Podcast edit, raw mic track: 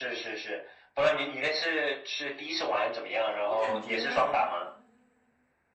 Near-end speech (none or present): present